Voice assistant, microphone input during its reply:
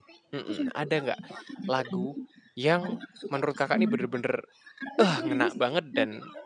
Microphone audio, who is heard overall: both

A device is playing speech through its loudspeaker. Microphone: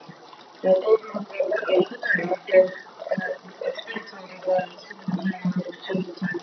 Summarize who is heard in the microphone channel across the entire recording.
echo only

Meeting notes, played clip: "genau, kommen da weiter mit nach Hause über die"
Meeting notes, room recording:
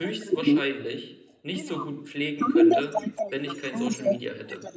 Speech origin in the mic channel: both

